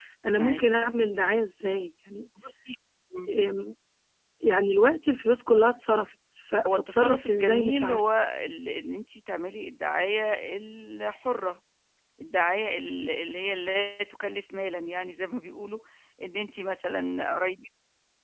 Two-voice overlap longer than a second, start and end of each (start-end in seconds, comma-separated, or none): 6.7-8.0